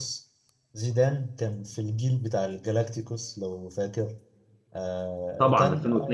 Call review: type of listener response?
listening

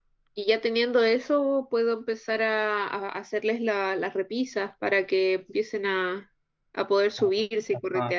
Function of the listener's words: taking over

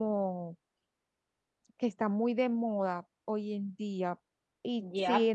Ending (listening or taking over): taking over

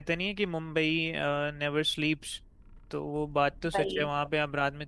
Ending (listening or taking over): listening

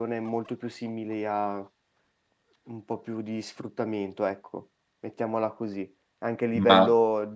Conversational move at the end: listening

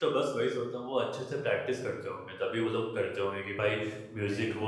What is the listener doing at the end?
listening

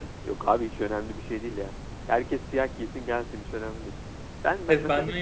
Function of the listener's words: taking over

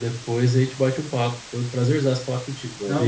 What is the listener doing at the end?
taking over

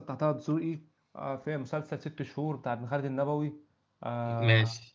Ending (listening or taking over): listening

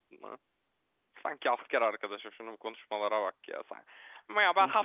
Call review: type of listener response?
listening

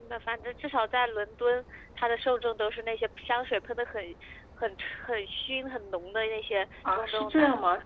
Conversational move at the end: taking over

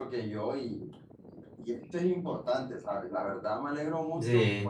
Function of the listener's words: listening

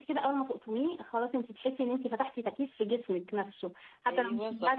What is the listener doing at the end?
listening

